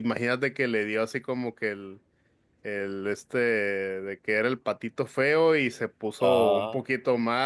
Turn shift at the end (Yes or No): No